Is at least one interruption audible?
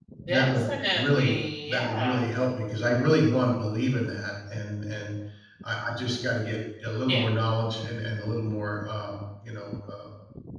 Yes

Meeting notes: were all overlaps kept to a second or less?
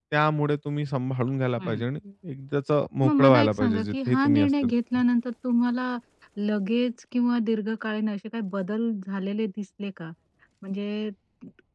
No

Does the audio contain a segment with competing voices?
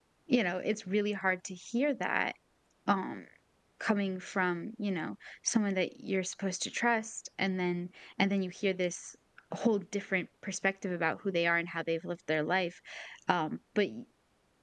No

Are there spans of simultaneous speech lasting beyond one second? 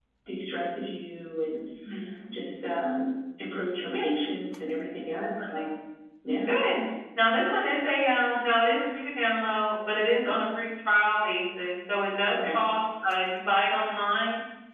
No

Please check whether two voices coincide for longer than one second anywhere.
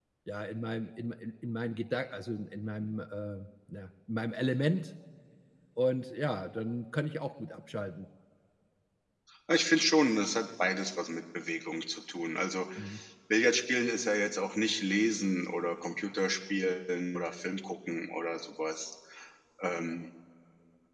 No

